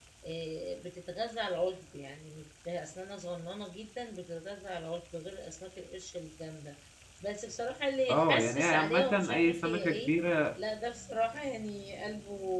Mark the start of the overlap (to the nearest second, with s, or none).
8 s